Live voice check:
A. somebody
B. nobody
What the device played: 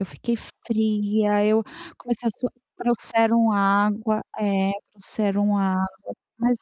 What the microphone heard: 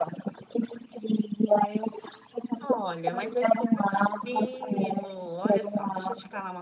A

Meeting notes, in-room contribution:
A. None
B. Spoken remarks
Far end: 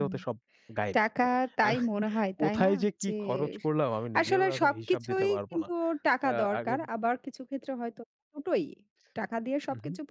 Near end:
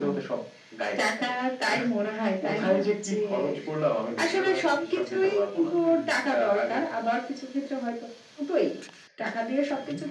B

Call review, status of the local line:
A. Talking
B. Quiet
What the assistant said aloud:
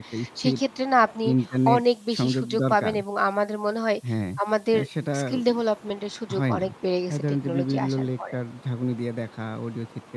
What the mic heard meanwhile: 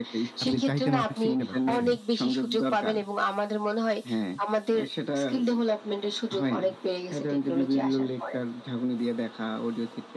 A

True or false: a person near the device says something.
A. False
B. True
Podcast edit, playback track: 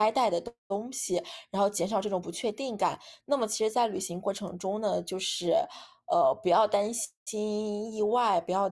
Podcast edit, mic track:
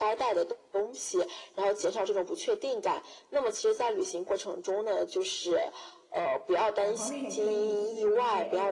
B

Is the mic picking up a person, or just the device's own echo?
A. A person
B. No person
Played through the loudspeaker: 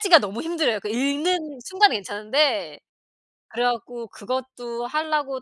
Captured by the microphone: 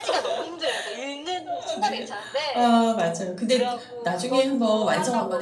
A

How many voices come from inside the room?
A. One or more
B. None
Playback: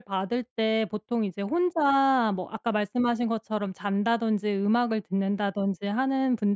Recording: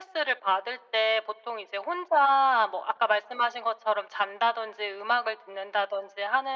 B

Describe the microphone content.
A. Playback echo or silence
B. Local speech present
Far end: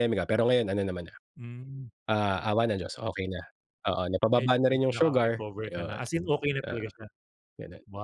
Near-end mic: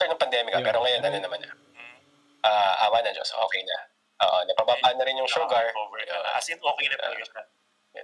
B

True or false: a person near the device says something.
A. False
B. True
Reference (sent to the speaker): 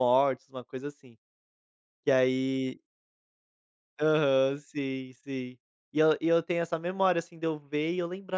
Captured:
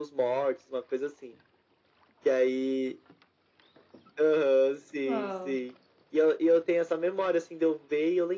B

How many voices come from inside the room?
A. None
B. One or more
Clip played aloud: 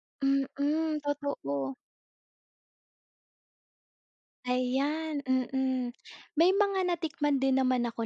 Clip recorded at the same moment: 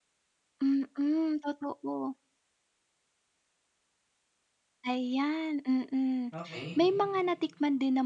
B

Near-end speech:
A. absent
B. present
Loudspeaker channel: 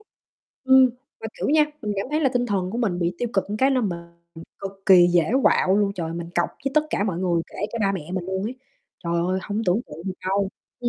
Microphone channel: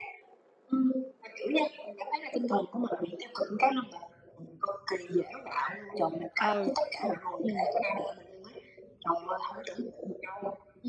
B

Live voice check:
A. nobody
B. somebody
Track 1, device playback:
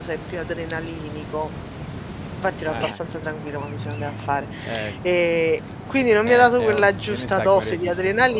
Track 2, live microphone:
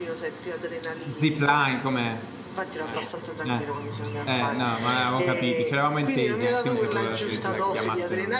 B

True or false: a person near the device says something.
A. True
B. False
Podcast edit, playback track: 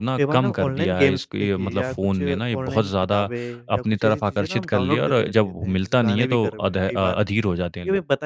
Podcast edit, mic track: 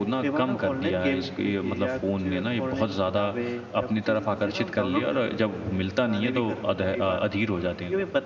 B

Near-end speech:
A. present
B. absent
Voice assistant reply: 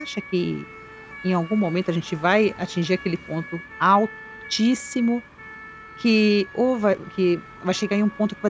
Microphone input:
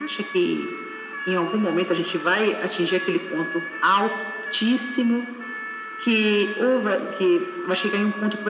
B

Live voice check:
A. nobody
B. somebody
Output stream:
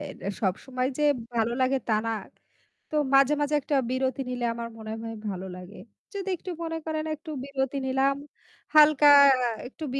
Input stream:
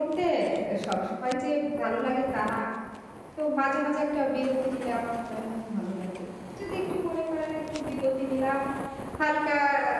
A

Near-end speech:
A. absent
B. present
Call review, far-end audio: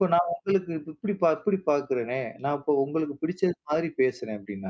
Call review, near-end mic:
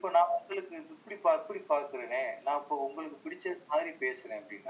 A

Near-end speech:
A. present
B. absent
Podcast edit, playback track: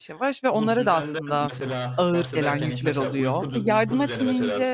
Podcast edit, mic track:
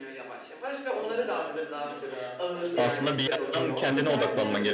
A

